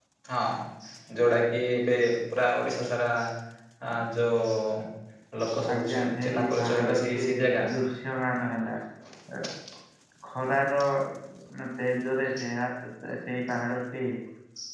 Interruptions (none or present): present